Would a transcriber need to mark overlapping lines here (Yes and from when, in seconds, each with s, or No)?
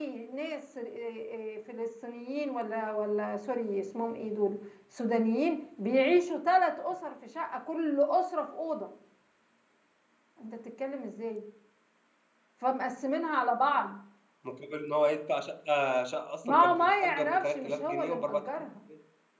Yes, from 16.4 s